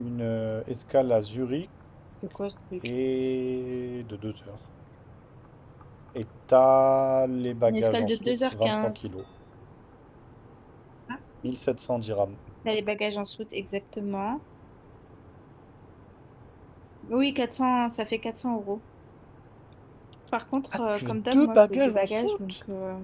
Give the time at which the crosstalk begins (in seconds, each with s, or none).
7.7 s